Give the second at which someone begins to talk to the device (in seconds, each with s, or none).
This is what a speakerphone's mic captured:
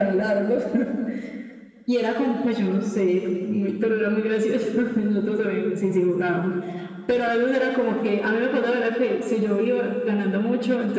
none